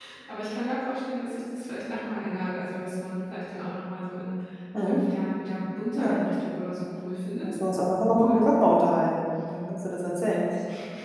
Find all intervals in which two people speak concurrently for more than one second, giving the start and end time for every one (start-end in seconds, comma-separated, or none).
none